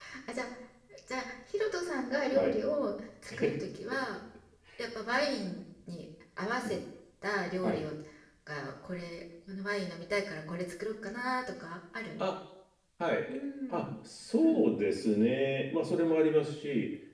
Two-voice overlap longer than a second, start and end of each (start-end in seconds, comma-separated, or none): none